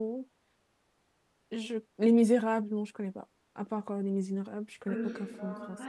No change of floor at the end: No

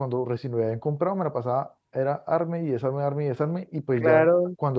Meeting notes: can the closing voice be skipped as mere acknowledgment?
Yes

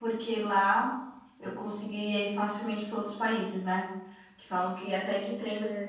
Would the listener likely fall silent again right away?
Yes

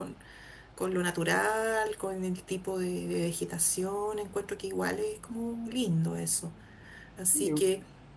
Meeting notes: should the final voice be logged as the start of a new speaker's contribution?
No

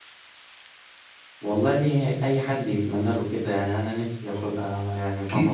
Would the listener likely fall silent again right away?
No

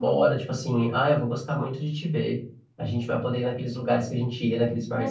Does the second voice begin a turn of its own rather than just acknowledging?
Yes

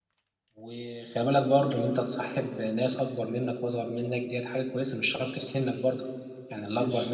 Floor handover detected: Yes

